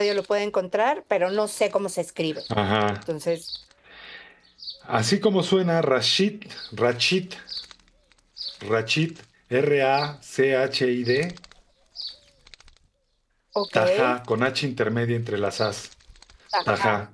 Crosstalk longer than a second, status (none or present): none